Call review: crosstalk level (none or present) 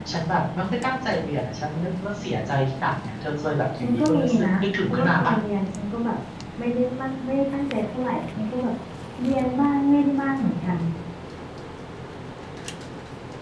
present